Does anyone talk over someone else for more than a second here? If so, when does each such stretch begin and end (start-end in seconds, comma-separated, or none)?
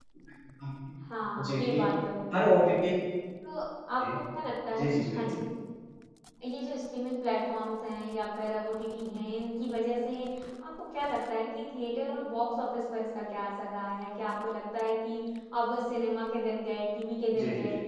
none